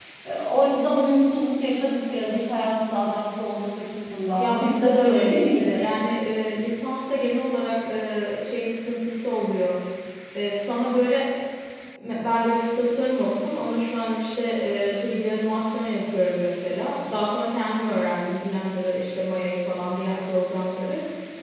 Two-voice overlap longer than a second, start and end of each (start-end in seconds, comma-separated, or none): 4.4-5.8